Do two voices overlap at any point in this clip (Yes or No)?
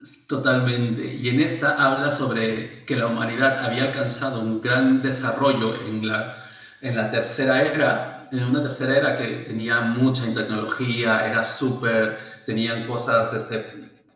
No